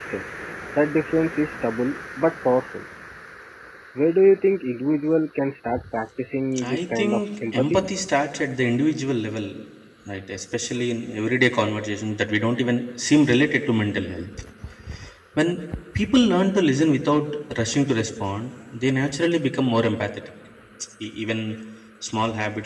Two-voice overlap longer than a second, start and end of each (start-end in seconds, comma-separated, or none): 6.6-7.9